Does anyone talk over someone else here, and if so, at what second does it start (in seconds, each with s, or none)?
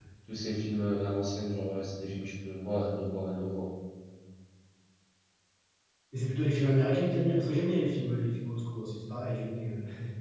none